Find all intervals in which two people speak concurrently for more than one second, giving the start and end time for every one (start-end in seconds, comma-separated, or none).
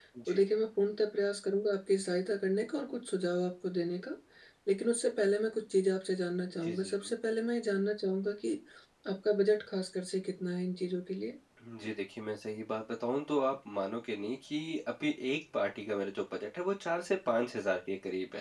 none